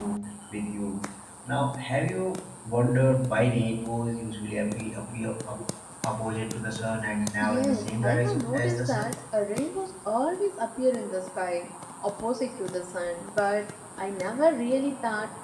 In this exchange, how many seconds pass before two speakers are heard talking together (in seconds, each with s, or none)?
7.4 s